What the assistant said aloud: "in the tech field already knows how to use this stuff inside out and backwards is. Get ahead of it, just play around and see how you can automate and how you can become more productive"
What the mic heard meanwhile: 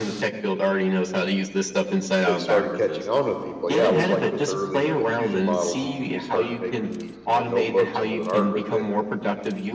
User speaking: Yes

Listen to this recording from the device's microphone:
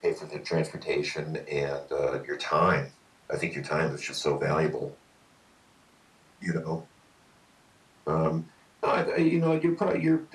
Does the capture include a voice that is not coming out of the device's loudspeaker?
No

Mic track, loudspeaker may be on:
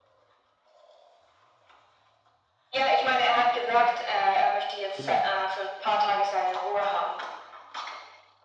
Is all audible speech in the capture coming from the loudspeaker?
No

